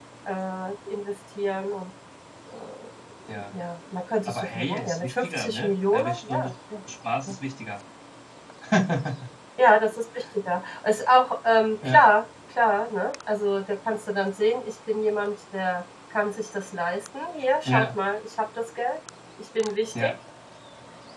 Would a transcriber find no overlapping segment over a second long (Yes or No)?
No